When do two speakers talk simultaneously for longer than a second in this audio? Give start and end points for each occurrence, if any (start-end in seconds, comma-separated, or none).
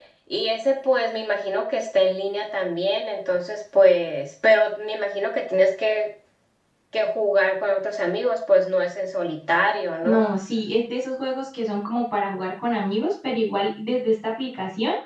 none